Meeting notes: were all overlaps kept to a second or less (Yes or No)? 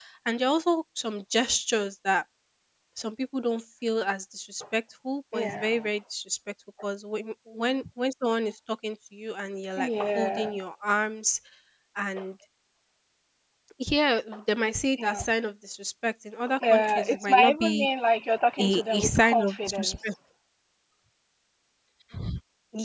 No